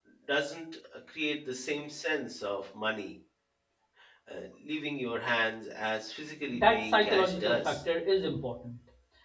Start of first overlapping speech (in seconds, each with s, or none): 6.5 s